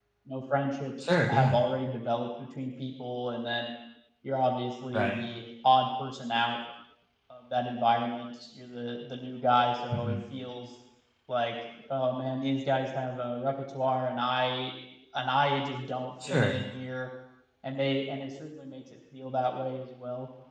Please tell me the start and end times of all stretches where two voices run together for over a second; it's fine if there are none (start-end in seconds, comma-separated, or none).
none